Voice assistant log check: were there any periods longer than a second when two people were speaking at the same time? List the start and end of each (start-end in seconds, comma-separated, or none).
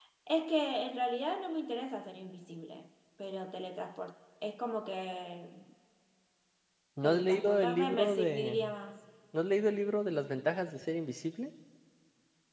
7.0-8.6